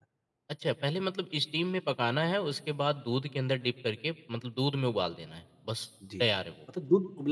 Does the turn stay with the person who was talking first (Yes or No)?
No